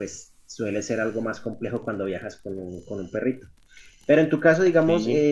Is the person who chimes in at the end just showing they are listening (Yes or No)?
Yes